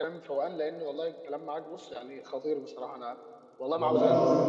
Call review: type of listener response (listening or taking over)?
taking over